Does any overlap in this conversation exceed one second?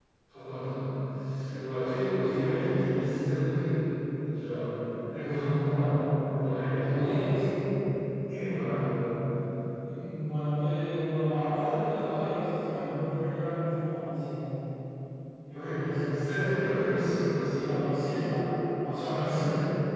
Yes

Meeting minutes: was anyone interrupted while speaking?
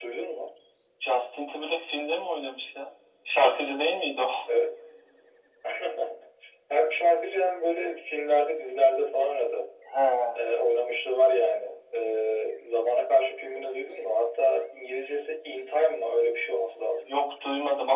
No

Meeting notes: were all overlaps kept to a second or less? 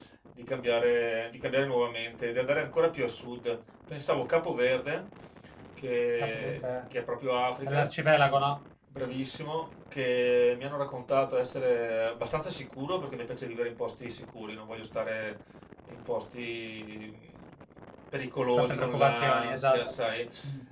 No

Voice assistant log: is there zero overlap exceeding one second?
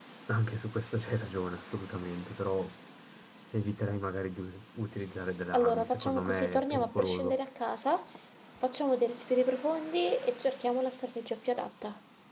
No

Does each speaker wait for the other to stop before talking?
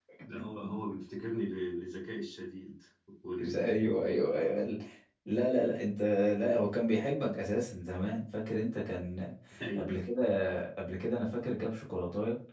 No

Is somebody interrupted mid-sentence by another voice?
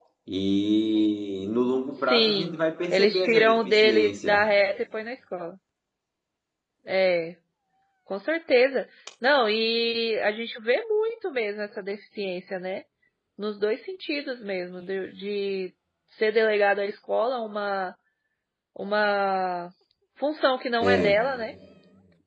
Yes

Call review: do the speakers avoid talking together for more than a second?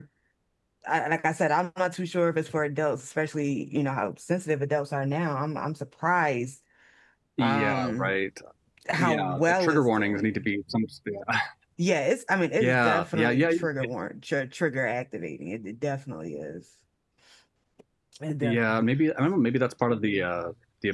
No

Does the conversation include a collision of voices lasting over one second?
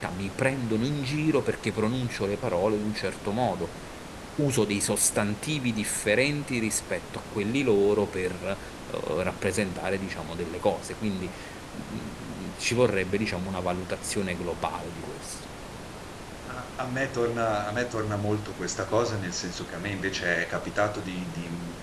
No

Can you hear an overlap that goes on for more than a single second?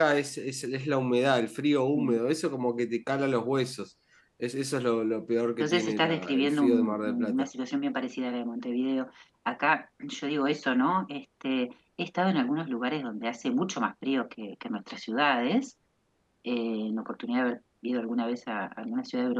Yes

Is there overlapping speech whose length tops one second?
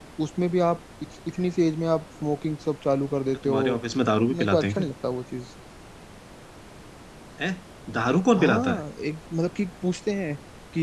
No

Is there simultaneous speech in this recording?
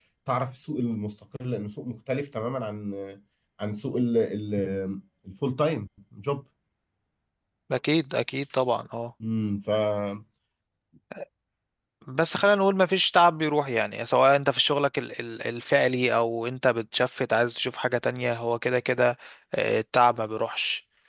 No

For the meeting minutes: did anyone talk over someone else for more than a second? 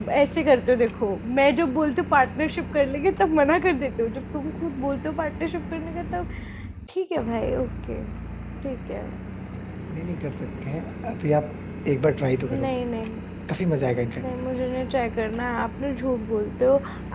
No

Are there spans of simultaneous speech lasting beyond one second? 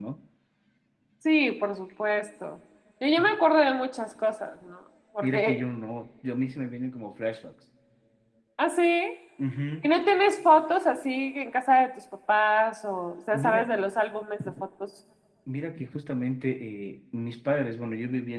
No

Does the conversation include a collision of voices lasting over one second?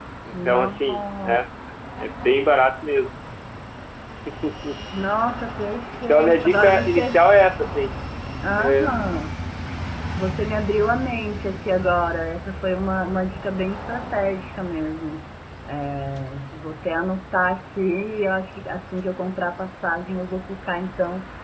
Yes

